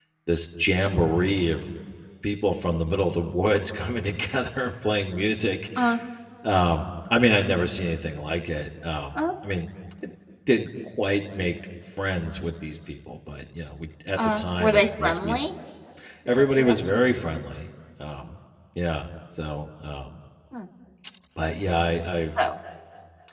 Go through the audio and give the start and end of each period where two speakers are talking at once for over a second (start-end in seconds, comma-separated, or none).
14.2-15.4